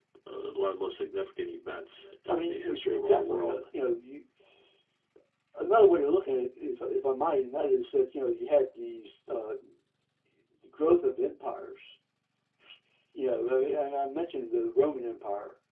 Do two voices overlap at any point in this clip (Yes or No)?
Yes